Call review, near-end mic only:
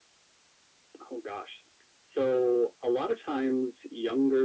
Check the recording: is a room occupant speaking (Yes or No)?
No